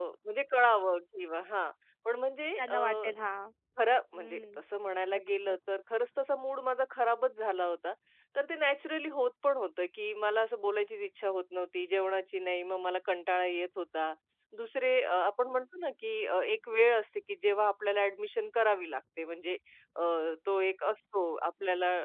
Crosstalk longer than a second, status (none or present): none